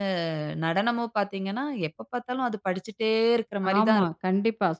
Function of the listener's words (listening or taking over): taking over